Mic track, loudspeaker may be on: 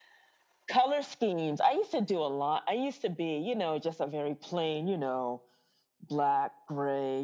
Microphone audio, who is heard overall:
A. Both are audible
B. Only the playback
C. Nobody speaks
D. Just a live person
B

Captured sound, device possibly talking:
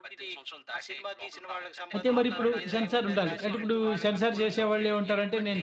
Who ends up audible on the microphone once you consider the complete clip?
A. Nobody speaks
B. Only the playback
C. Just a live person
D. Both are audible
D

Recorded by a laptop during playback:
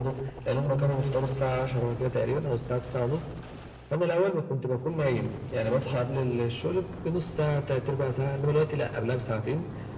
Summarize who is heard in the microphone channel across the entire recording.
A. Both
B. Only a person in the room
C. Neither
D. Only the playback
D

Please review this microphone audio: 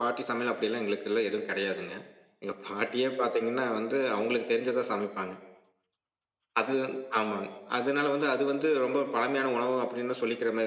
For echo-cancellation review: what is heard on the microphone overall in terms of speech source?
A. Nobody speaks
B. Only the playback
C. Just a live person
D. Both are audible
B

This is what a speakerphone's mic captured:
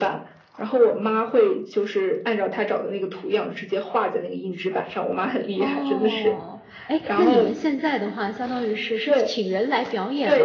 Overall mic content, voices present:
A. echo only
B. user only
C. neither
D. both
D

